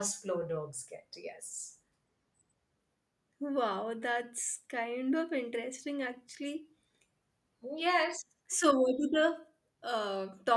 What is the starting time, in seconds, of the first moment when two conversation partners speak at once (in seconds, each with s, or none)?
none